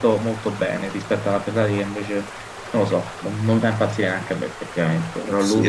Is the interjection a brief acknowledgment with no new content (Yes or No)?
No